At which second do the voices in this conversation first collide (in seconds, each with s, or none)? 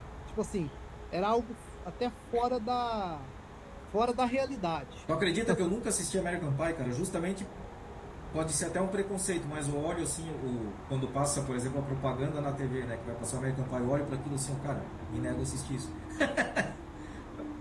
none